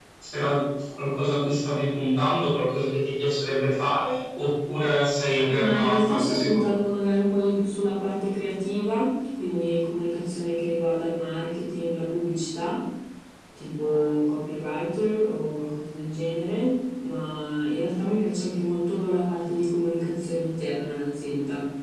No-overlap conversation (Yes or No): No